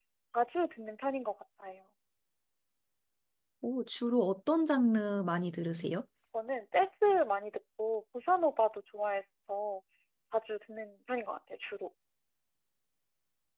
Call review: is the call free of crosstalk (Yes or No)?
Yes